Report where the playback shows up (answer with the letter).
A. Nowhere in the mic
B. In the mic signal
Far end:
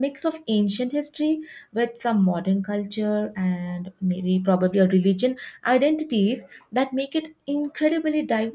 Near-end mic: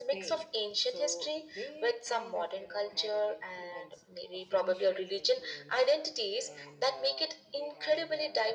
B